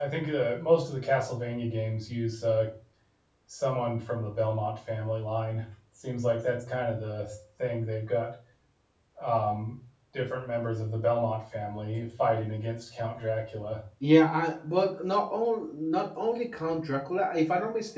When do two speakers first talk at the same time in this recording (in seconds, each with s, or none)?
none